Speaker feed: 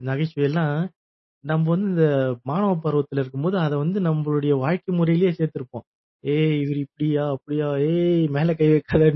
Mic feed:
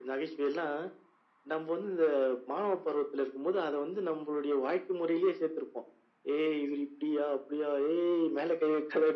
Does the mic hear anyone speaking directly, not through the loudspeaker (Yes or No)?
No